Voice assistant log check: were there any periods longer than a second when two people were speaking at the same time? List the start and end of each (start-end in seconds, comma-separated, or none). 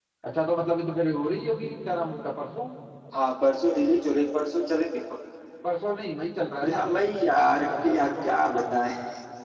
7.3-8.7